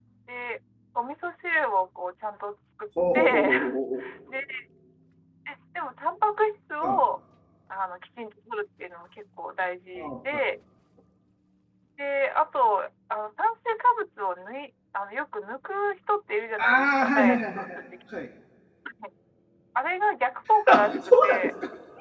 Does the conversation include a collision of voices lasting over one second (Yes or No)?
Yes